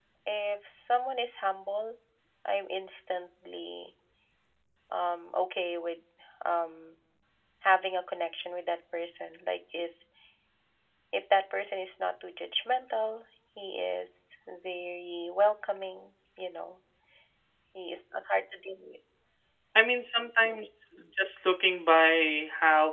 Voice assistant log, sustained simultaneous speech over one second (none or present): none